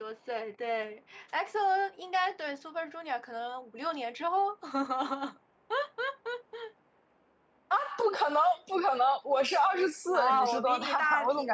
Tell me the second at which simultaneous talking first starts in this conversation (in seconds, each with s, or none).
10.1 s